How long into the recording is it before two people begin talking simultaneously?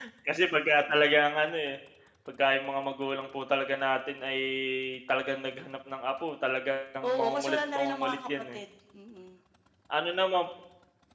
7.0 s

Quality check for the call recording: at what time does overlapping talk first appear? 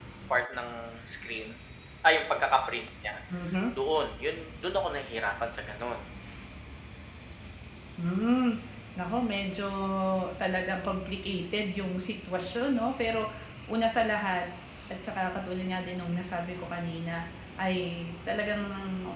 none

